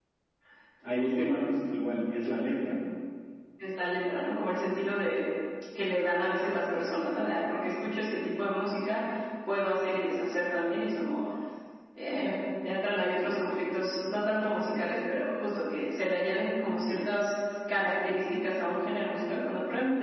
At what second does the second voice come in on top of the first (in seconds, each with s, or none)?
none